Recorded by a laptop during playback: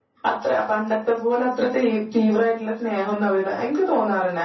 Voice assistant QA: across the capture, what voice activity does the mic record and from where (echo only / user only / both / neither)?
user only